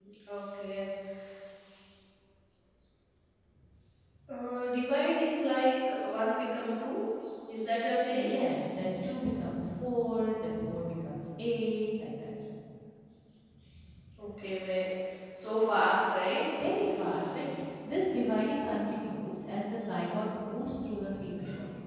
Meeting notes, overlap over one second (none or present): none